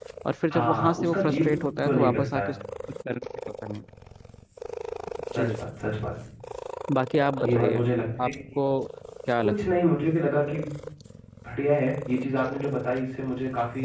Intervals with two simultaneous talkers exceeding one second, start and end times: 0.5-2.5

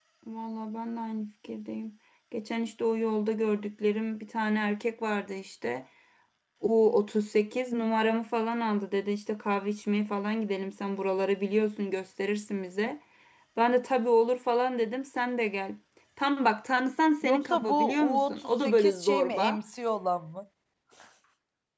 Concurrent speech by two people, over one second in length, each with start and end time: 17.2-19.6

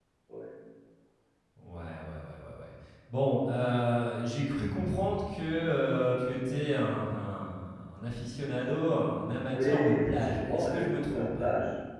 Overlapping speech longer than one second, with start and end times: 9.5-11.4

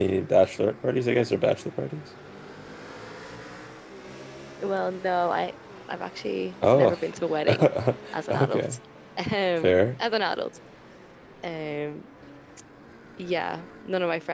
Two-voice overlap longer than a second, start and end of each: none

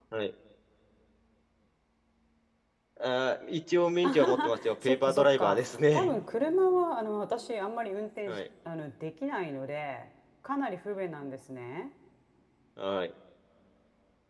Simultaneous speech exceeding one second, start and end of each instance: 4.0-6.1

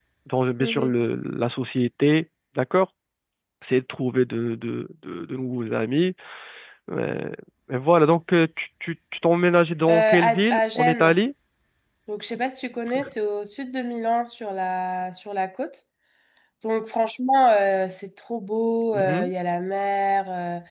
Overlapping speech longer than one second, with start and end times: 9.9-11.2

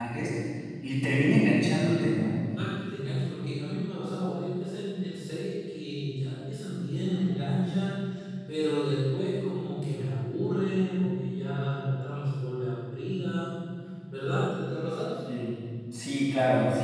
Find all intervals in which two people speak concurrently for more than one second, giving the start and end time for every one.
none

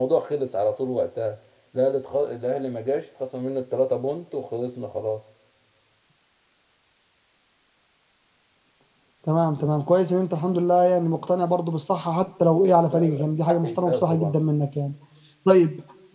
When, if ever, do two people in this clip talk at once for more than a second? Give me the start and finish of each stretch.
12.9-14.3

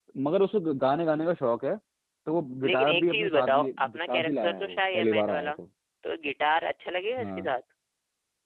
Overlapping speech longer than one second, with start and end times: 2.6-5.5

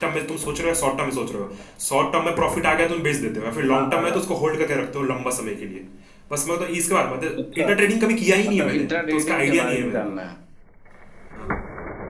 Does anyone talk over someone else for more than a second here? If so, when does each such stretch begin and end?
8.5-10.2

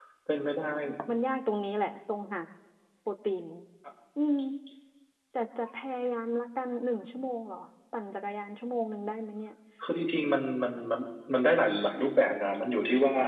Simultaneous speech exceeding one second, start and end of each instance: none

